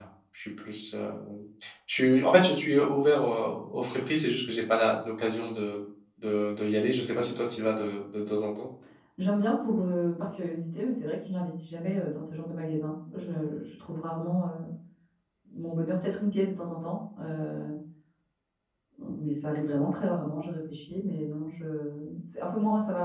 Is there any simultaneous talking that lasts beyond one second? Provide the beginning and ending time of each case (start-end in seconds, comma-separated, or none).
none